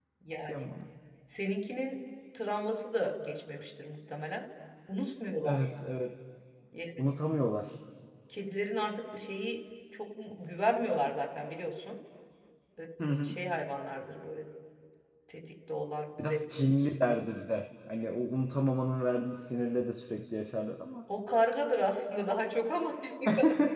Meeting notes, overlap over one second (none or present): none